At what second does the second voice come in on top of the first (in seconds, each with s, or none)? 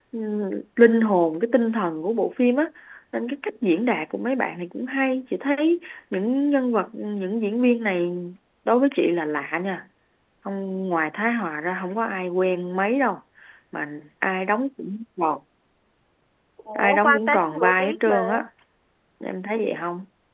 16.8 s